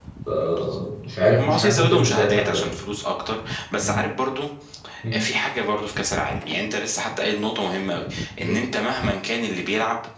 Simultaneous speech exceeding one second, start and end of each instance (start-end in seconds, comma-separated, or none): 1.4-2.7